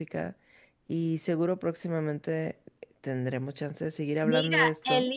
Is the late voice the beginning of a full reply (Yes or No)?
Yes